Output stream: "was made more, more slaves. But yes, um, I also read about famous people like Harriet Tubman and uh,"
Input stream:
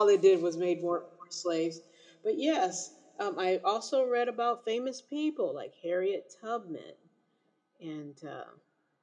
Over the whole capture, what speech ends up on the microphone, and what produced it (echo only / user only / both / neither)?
echo only